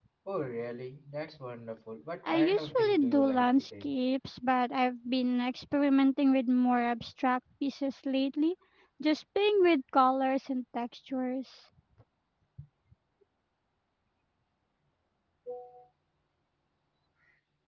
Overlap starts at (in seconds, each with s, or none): 2.2 s